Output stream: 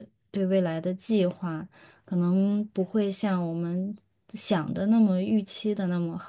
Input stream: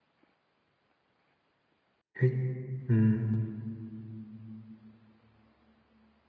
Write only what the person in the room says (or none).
诶，嗯